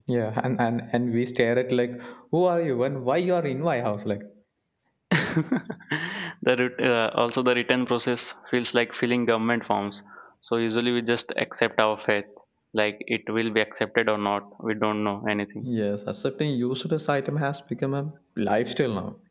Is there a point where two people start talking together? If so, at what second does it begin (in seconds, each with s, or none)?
none